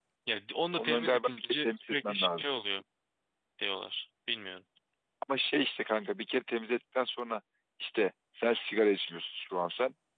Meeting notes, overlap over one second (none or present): present